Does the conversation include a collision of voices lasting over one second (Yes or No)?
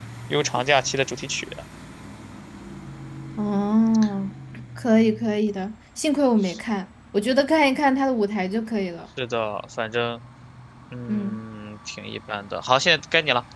No